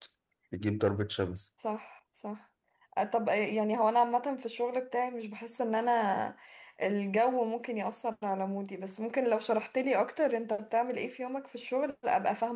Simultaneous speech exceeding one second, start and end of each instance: none

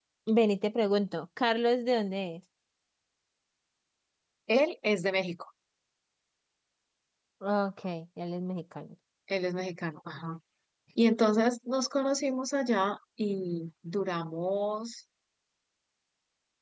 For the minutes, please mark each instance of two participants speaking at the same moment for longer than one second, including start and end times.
none

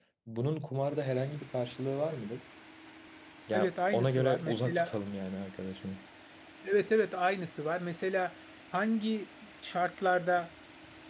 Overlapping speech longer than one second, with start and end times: 3.5-5.0

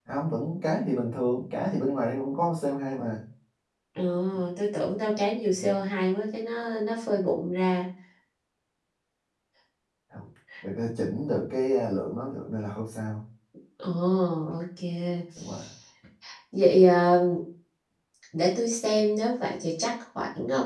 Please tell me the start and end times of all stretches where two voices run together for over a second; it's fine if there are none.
none

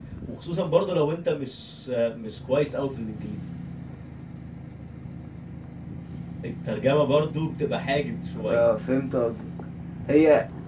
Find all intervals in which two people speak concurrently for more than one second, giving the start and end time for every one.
none

